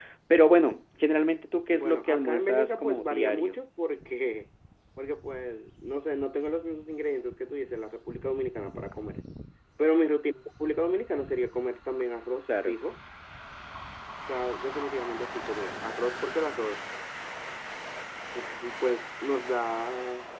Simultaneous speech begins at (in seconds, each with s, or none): 1.7 s